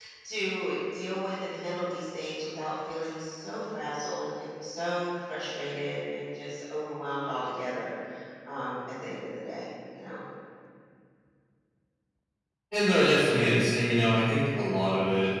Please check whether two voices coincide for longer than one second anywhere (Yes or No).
No